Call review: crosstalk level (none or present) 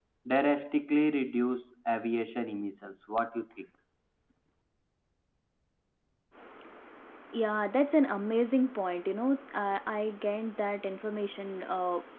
none